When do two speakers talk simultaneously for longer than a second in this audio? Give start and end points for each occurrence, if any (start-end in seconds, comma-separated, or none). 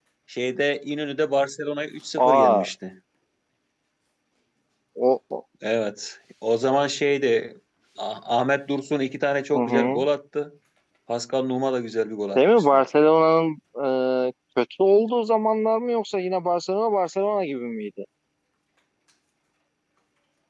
none